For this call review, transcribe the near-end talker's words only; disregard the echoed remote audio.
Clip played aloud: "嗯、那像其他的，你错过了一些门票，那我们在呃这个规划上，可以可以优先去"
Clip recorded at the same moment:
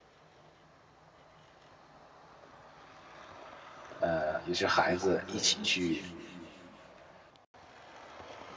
呃，尤其是孩子一起去，

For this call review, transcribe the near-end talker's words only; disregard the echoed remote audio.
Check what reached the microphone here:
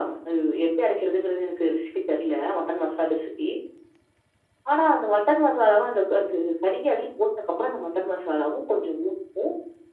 none

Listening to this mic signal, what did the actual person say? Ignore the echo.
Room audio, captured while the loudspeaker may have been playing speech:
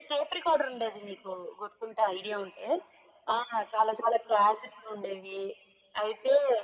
none

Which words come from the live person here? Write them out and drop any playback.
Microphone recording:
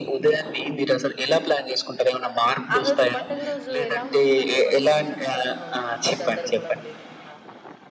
ఆహ్, ఆ రోజు పండుగ రోజు ఎలా ఉంటుందండి మనసు నిశ్శబ్దంగా ఉంటుంది. గందరగోళం లేకుండా

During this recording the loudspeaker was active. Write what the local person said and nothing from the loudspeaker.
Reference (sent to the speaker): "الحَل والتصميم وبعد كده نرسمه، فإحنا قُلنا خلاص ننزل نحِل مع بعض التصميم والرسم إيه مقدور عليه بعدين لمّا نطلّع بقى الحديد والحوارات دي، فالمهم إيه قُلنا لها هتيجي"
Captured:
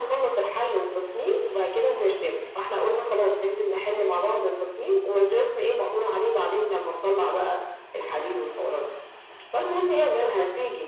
none

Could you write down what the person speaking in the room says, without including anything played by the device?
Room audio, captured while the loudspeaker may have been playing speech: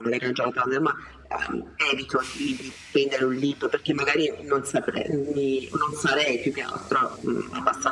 none

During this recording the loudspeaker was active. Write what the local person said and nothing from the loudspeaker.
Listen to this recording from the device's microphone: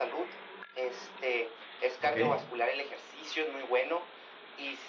okey,

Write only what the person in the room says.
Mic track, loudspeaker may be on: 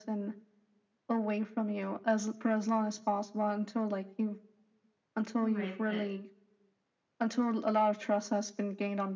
Right. But

